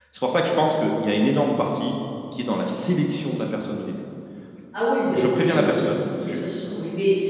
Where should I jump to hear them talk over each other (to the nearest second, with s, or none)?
5 s